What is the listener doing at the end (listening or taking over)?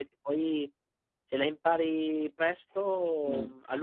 taking over